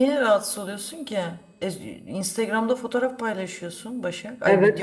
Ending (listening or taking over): taking over